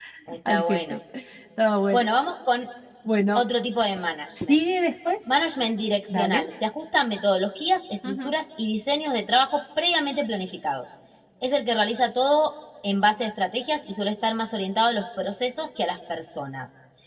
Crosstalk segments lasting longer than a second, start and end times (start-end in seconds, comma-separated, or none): none